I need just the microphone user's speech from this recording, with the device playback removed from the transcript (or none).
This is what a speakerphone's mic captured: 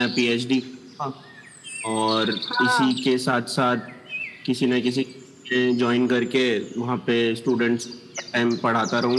हाँ